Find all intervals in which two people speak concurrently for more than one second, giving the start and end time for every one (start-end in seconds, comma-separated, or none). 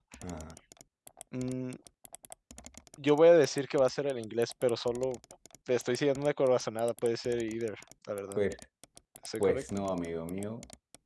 none